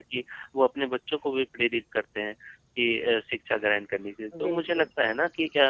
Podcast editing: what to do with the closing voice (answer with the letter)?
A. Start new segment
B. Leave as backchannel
B